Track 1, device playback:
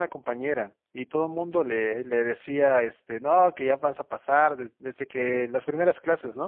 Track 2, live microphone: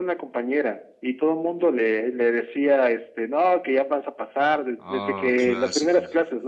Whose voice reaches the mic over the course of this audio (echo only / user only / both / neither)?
both